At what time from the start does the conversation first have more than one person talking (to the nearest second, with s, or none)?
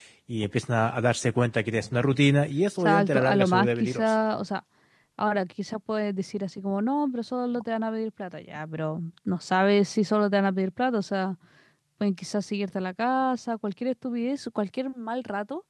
3 s